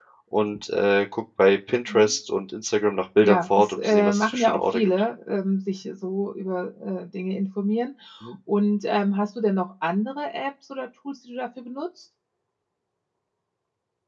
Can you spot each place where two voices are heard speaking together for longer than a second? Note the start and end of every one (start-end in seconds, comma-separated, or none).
3.2-4.9